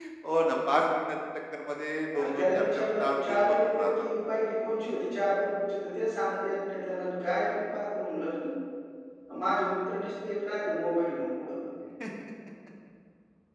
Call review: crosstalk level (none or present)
present